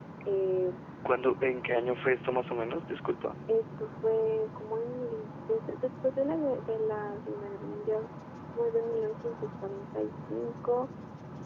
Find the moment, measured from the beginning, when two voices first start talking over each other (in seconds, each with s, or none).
none